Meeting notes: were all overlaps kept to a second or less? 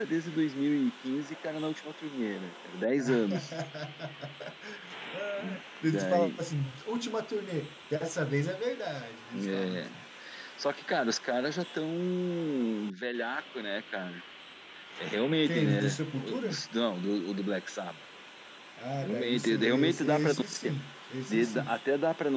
No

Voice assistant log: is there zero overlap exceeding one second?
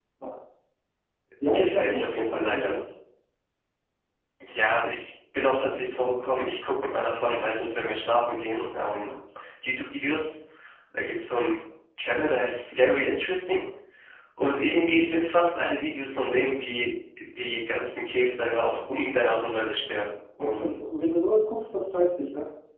No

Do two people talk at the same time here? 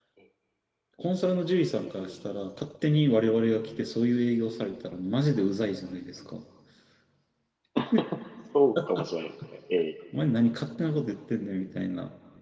No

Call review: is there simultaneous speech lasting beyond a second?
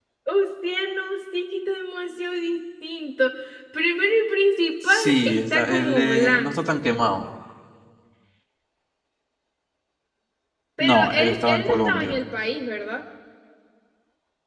Yes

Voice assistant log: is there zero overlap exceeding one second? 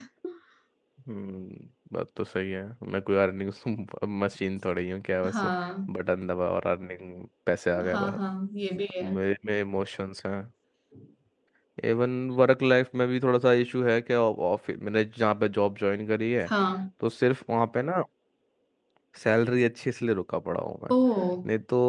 Yes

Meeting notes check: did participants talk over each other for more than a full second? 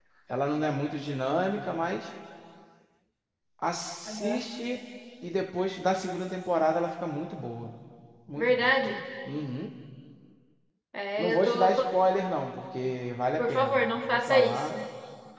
Yes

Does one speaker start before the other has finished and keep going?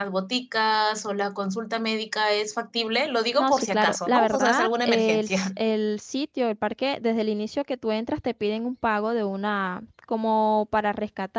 Yes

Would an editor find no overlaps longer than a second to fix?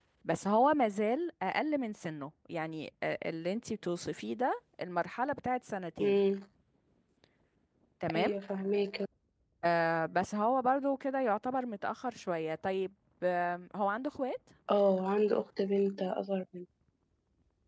Yes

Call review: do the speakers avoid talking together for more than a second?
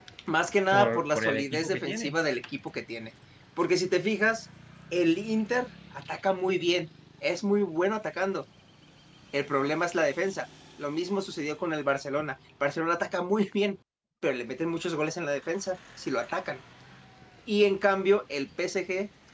No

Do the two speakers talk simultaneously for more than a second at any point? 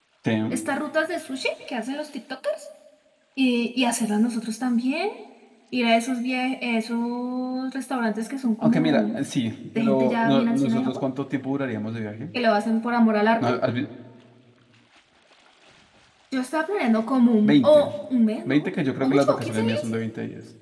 Yes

